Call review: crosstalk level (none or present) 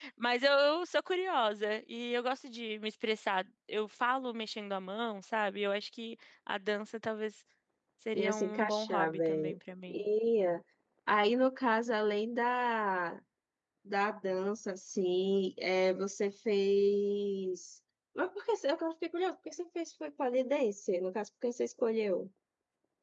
present